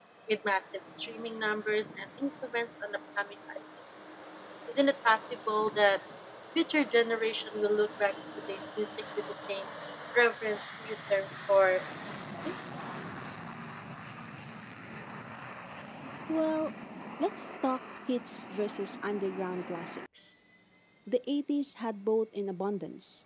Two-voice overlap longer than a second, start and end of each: none

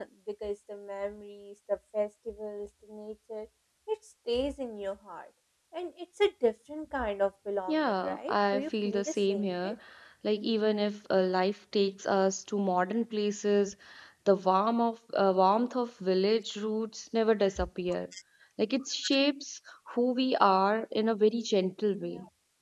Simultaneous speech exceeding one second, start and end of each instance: 7.7-9.5

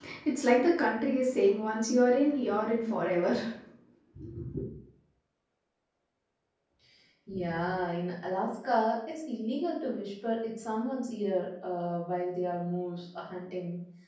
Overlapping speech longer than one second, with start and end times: none

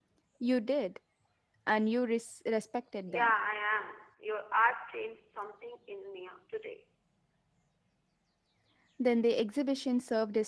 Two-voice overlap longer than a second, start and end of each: none

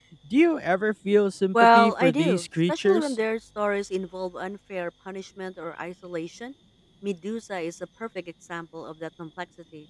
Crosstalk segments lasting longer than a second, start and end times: 1.5-3.1

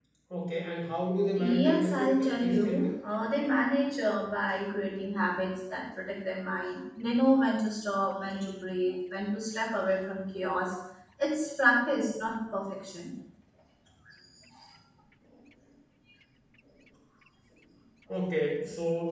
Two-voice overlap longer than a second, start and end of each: 1.3-2.9

